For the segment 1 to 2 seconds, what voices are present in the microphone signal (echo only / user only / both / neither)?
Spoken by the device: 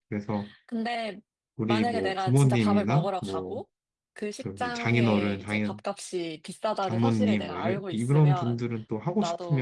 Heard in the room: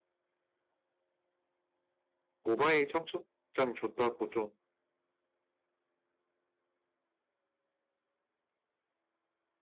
neither